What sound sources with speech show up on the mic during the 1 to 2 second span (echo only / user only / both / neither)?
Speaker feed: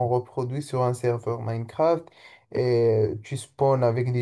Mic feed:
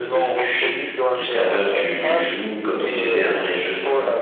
both